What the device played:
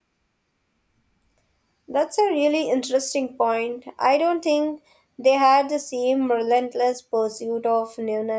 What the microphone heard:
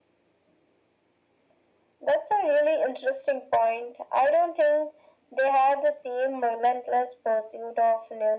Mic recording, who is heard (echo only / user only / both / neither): echo only